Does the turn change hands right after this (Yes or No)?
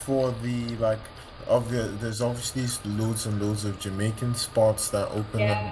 No